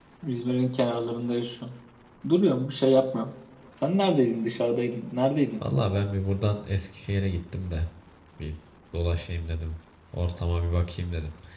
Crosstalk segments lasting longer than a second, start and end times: none

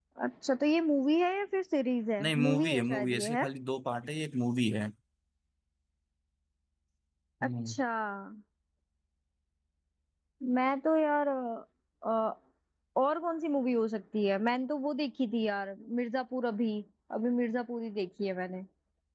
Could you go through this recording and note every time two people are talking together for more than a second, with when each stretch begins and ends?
2.2-3.4

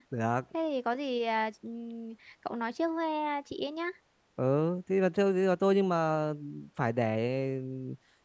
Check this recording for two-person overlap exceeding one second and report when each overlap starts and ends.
none

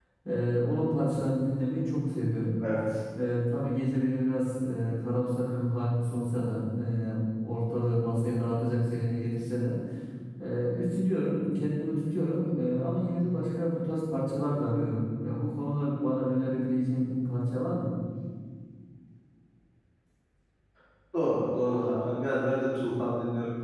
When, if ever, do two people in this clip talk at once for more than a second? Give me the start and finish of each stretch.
none

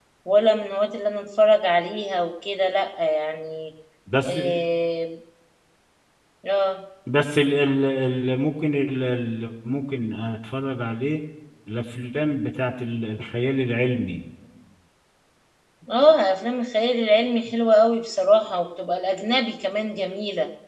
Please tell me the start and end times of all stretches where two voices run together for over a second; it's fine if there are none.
none

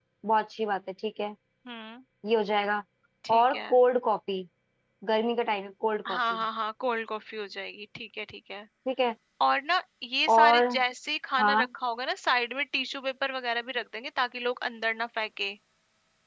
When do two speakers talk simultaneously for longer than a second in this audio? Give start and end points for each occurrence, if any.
none

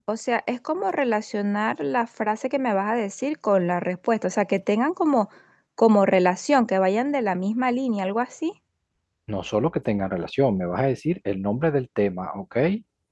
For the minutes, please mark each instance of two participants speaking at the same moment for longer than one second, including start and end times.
none

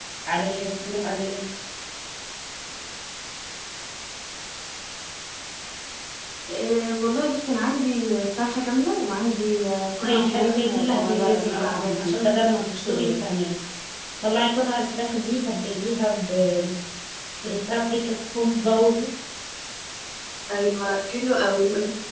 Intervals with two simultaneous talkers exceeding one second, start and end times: 10.0-12.2

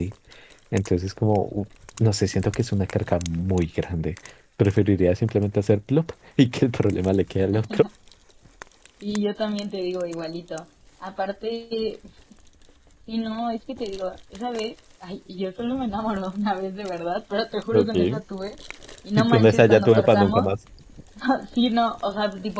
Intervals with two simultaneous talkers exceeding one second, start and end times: 19.2-20.5

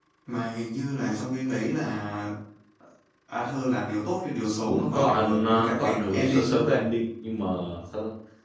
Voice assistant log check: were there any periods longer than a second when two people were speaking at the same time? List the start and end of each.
4.7-6.8

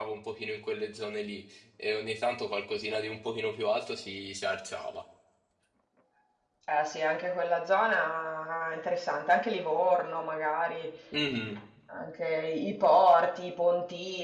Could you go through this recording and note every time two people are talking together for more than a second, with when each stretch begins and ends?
none

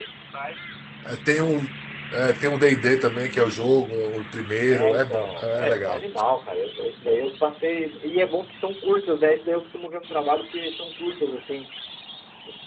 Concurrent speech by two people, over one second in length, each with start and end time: 4.7-6.0

